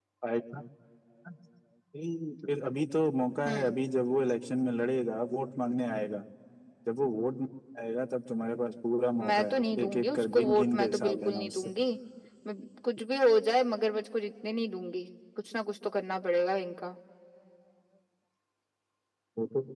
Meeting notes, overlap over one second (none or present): present